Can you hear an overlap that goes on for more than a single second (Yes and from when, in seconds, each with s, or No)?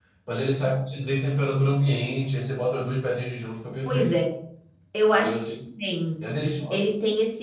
No